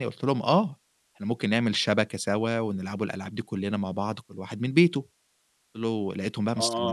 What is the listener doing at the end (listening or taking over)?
taking over